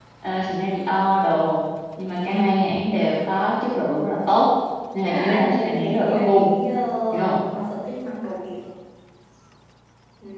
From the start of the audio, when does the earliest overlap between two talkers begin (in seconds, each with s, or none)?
5.0 s